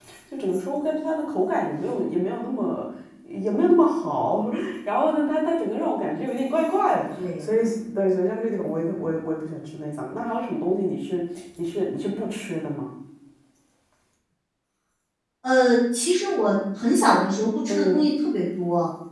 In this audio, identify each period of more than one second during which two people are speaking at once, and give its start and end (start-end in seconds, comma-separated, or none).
none